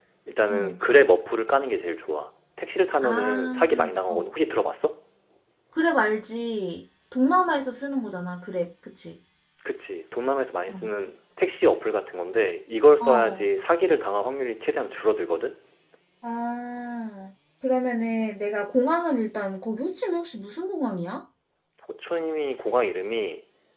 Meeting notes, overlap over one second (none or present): present